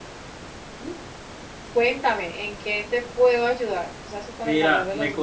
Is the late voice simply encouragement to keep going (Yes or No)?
No